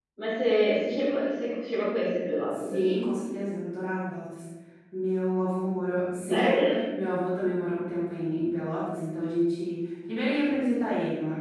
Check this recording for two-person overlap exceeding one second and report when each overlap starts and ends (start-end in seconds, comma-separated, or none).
none